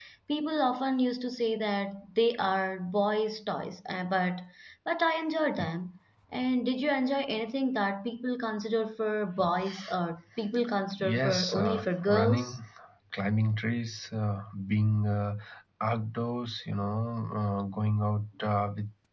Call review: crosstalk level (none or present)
present